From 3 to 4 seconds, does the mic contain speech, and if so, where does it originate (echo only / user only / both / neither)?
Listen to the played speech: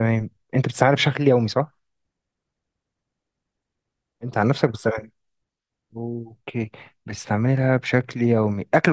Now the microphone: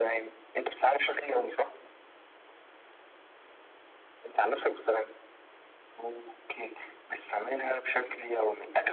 neither